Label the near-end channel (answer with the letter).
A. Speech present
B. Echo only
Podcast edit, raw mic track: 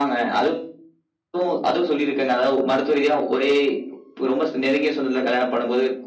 B